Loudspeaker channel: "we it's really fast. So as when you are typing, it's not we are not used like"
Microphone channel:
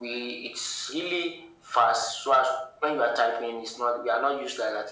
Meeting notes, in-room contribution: none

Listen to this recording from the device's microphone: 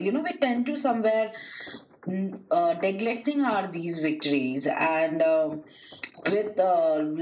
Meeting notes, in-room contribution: none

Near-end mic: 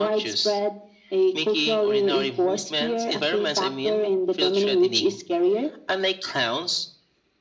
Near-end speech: none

